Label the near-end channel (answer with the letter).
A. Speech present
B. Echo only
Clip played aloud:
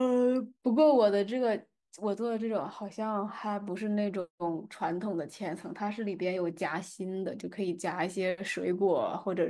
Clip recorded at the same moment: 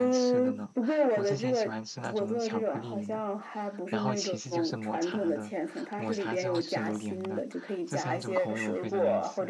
A